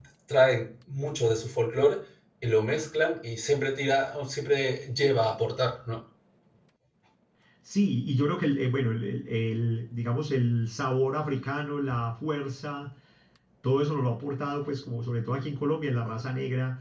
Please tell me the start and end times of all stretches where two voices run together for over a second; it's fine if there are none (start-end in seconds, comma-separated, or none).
none